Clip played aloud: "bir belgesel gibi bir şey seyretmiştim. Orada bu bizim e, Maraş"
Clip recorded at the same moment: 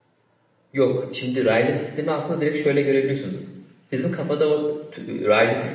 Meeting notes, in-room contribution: present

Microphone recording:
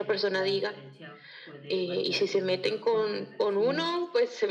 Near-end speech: present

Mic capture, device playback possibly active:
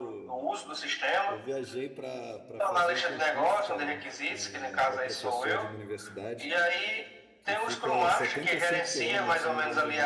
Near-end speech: present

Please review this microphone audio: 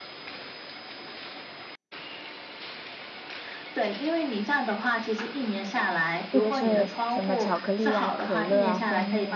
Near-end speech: present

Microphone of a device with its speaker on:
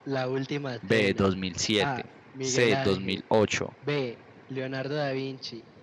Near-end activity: present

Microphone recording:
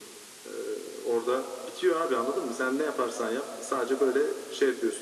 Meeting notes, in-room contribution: none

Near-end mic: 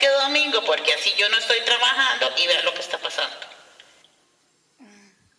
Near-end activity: none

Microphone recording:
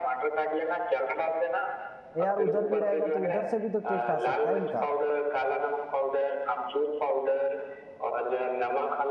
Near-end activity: present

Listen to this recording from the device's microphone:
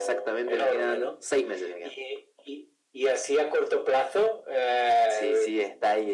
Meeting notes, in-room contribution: none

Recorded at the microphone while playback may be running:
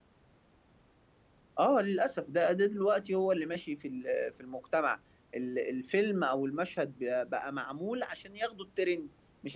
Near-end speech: present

